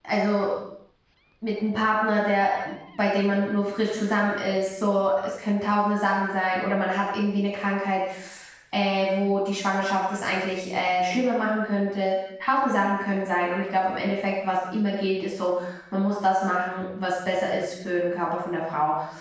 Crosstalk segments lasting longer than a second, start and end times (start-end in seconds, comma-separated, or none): none